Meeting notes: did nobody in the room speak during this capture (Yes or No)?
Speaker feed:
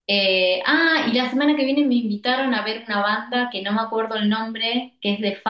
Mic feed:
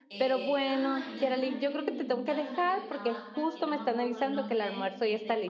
No